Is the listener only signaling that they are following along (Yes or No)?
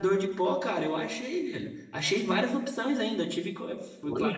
Yes